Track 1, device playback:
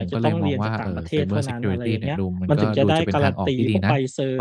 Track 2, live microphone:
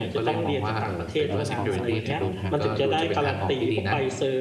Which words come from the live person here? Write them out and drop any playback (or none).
เออ ความสามารถเฉพาะทางอะไร